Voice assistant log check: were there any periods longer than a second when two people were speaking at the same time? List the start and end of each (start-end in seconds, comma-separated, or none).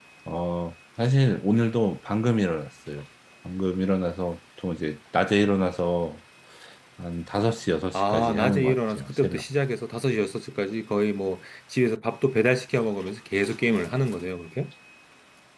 7.9-9.4